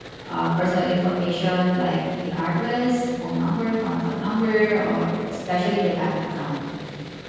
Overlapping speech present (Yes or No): No